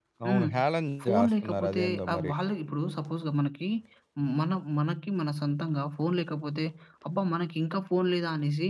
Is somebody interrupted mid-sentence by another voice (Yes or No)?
Yes